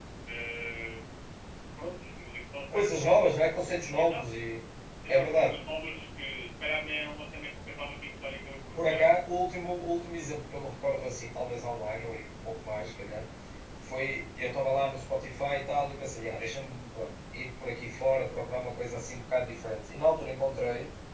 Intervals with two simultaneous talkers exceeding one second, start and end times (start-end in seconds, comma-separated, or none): none